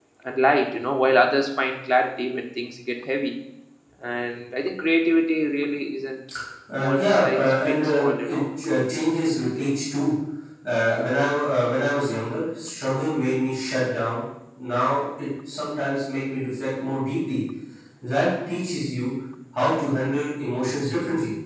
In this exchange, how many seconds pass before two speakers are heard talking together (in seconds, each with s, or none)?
6.8 s